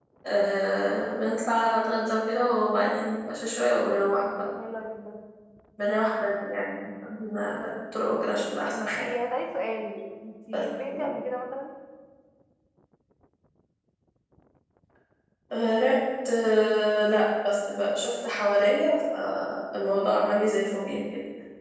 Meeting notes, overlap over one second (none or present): none